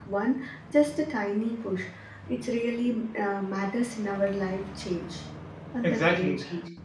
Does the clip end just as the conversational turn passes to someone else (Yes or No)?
Yes